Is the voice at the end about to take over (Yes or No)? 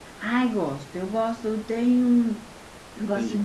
No